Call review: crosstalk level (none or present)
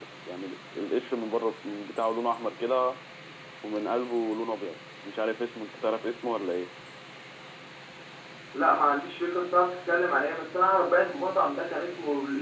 none